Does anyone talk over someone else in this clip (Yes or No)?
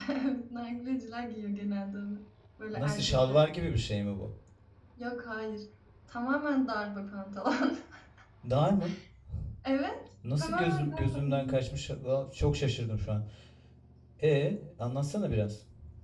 Yes